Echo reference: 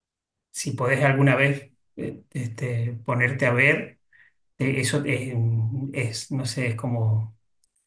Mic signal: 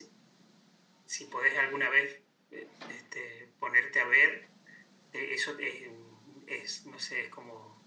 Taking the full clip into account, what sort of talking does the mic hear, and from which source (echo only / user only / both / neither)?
echo only